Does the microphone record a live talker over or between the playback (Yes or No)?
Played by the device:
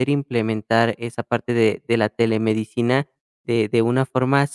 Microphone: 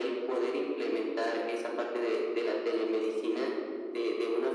No